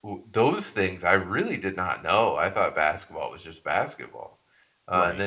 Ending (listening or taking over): listening